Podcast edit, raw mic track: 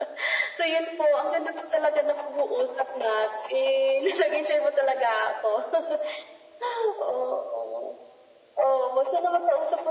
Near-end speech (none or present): none